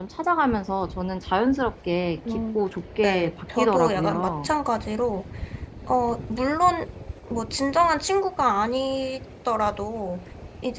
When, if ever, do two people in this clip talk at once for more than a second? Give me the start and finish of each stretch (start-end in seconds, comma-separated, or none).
3.0-4.5